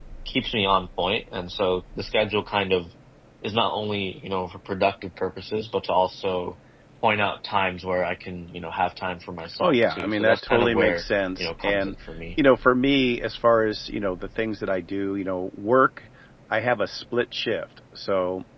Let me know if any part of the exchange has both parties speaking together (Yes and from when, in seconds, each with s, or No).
Yes, from 9.4 s